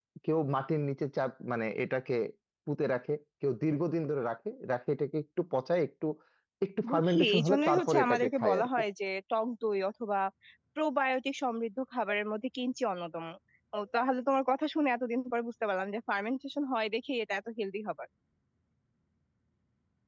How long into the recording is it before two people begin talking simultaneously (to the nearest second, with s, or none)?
7 s